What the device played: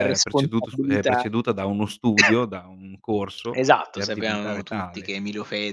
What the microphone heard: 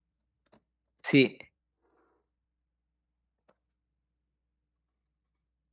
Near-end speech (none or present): present